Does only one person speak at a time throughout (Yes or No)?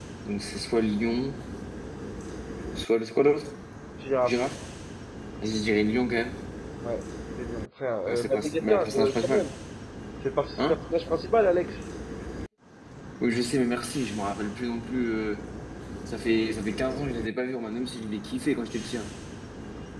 No